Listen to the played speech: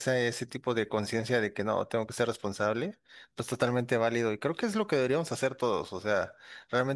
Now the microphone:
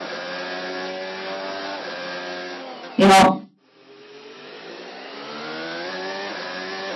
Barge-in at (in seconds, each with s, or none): 3.0 s